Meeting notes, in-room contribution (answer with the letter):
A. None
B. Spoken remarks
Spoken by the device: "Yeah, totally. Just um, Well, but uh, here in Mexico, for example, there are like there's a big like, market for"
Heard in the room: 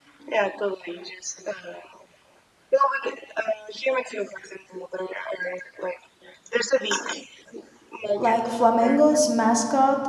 B